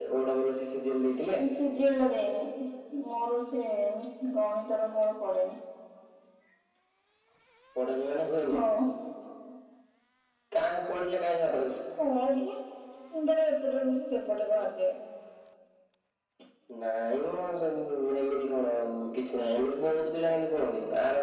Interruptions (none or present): none